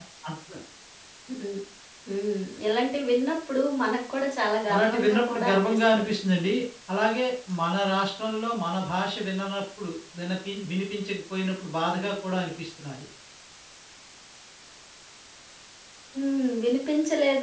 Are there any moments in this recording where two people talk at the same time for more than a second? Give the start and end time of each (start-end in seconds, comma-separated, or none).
4.7-6.2